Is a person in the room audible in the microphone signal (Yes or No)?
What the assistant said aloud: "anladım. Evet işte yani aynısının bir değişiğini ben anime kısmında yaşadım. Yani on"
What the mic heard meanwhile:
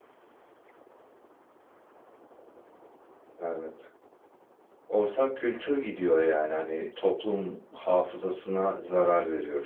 Yes